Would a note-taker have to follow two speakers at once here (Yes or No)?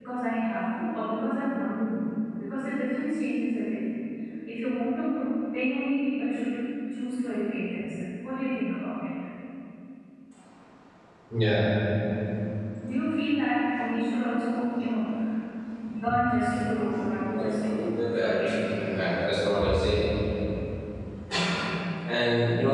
Yes